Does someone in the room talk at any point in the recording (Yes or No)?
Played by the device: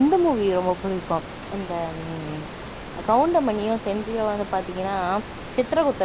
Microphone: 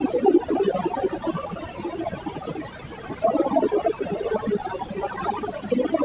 No